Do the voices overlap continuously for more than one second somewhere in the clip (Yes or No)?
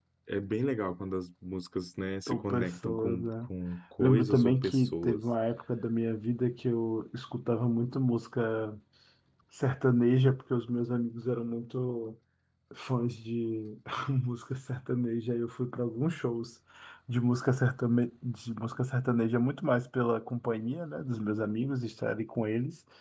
Yes